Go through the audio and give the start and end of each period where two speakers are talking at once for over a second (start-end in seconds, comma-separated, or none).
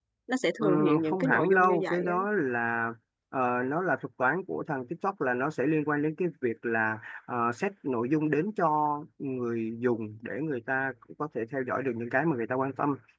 0.6-2.2